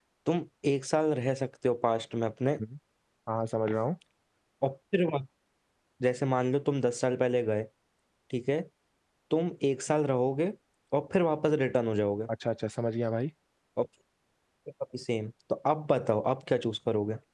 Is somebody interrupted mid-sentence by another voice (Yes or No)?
No